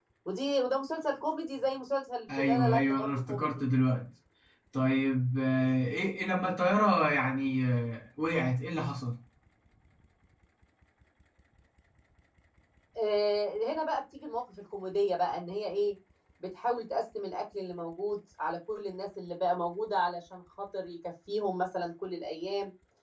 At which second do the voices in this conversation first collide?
2.3 s

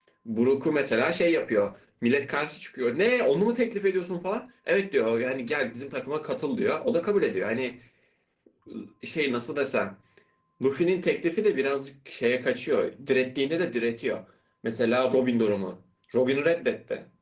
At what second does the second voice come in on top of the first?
none

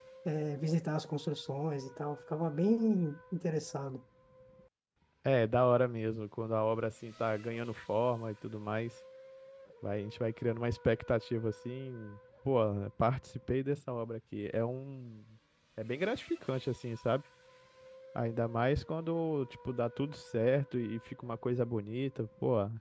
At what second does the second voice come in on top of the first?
none

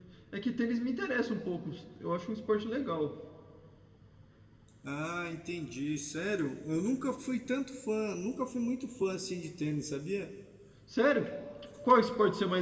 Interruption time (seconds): none

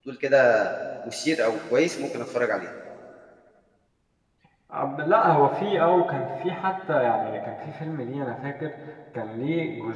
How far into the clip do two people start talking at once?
none

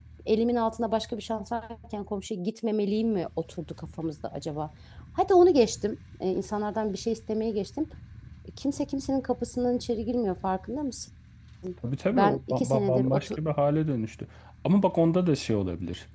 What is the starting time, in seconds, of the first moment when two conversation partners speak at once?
12.1 s

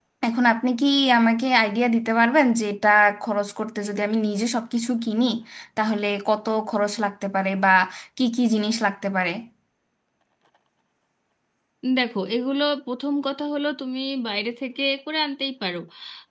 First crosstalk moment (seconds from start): none

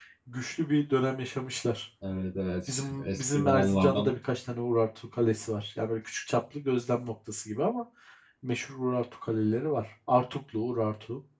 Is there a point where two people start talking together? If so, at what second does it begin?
2.7 s

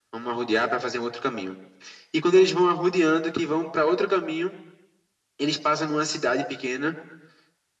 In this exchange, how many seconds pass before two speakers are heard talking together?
none

